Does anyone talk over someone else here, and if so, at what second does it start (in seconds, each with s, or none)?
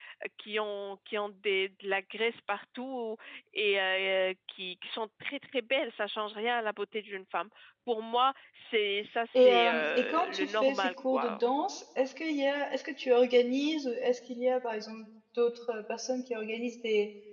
9.3 s